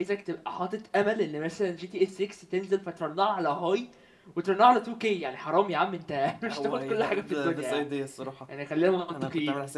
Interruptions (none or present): present